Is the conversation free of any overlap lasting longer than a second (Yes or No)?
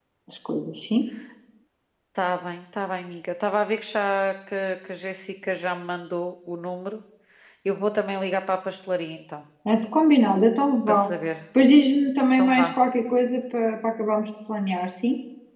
Yes